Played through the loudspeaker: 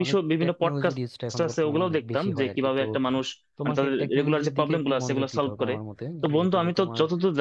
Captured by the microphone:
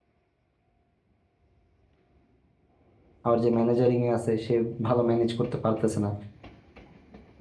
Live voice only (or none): আবার যে ম্যানেজারিং এ আছে সে ভালো ম্যানেজ করতে পারতেছে না